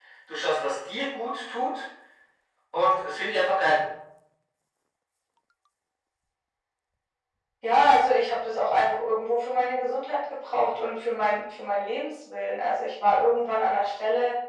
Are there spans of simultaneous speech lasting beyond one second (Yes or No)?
No